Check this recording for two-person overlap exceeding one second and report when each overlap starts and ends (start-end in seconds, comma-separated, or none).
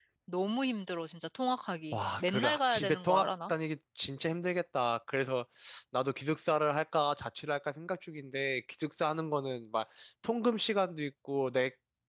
1.9-3.5